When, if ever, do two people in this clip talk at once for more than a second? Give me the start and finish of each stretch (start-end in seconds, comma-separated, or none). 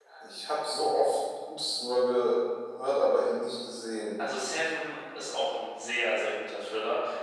none